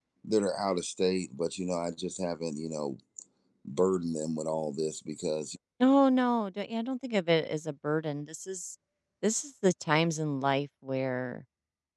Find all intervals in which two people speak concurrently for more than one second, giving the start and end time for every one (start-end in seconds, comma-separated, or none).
none